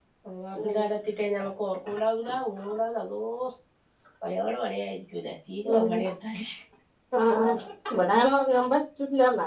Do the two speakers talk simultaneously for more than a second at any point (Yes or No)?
No